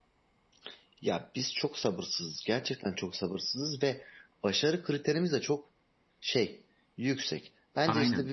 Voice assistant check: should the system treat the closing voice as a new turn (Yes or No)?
No